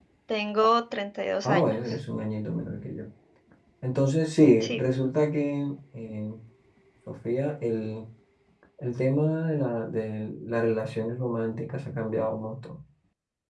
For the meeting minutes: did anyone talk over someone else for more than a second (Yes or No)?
No